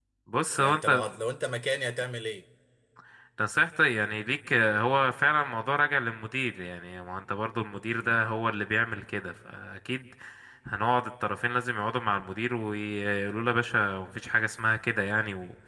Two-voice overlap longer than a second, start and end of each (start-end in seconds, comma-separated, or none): none